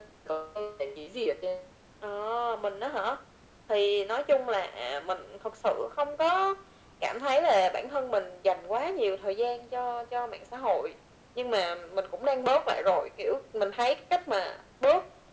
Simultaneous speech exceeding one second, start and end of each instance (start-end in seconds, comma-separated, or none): none